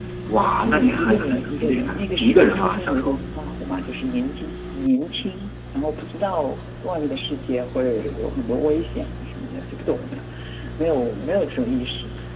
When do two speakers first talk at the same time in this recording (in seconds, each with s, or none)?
0.7 s